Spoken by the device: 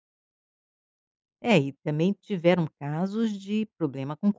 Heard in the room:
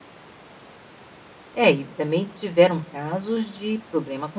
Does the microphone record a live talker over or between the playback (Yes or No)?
No